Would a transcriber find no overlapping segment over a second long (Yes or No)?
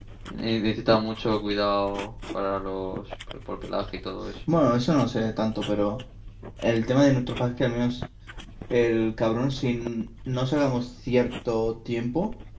Yes